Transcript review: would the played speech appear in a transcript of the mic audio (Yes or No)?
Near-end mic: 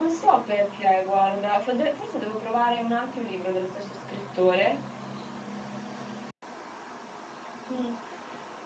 No